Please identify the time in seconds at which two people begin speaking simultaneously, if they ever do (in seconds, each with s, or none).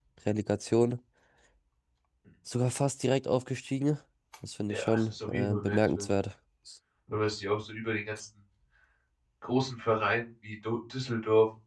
4.7 s